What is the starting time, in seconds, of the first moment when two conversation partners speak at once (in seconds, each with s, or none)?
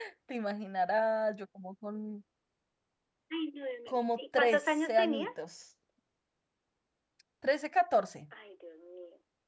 3.9 s